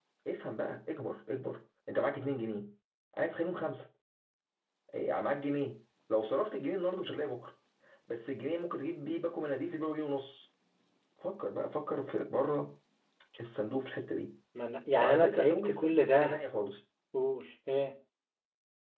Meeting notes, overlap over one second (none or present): present